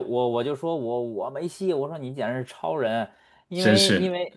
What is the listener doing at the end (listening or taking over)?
listening